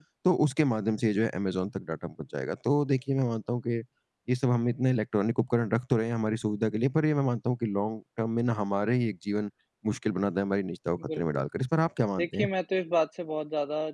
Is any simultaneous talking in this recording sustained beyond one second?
No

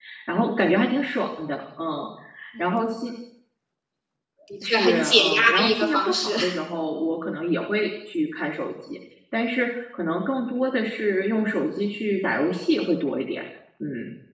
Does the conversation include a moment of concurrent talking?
Yes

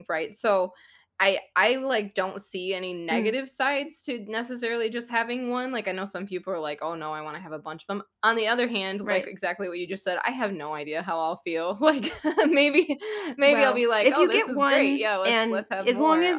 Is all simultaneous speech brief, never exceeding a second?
No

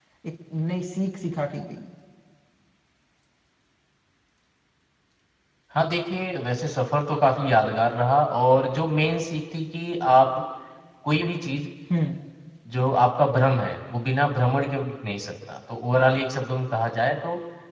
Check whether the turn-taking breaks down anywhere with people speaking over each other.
No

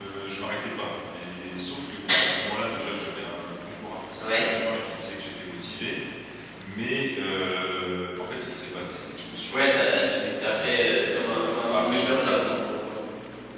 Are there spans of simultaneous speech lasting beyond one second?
Yes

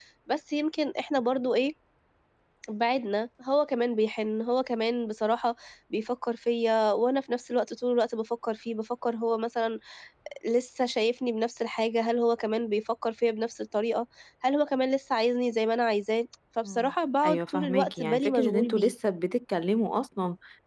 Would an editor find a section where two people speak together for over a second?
Yes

